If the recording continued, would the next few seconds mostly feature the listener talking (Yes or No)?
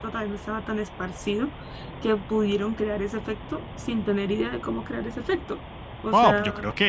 Yes